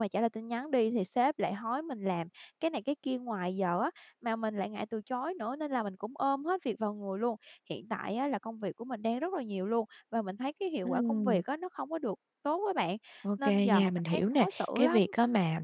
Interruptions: present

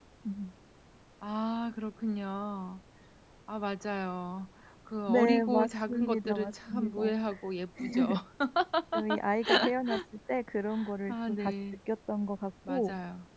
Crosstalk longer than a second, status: present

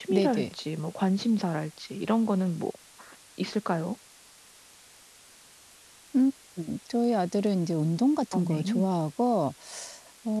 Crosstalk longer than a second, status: none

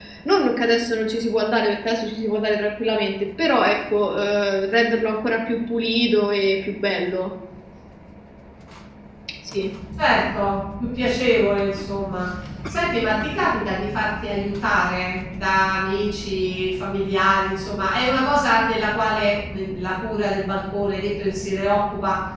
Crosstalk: none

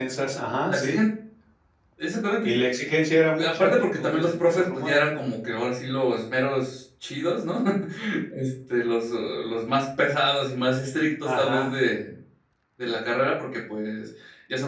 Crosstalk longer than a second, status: present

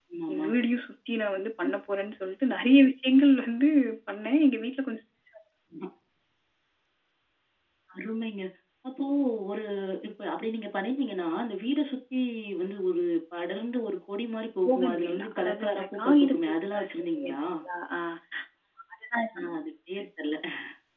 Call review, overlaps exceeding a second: present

